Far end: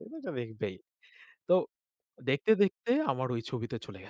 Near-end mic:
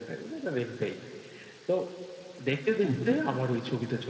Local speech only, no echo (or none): হু, হু।